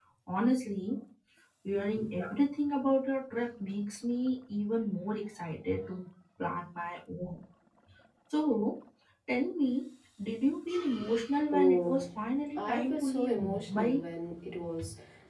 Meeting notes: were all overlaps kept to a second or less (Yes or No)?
No